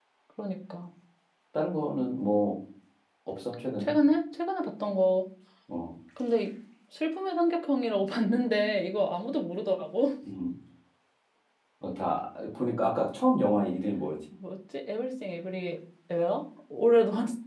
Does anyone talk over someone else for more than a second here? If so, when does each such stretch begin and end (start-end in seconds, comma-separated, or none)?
none